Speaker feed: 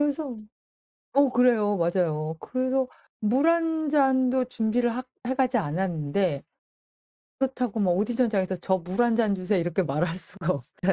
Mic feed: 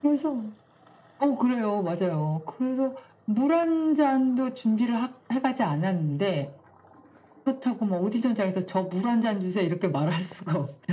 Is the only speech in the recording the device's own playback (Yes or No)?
Yes